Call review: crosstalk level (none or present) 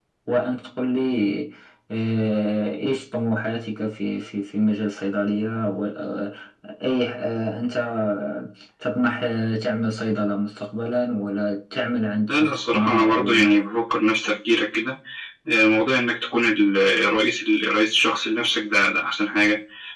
present